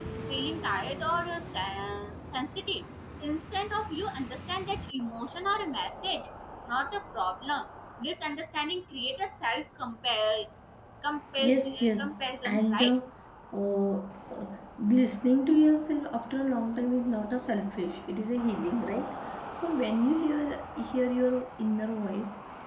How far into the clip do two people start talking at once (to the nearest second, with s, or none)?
11 s